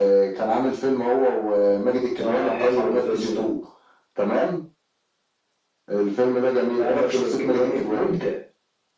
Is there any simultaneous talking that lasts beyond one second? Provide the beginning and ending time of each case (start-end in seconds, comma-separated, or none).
2.2-3.5, 6.7-8.1